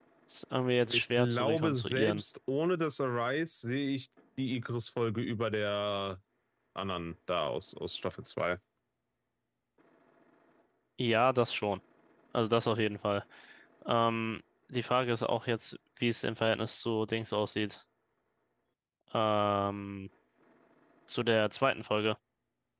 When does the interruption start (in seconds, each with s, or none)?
0.8 s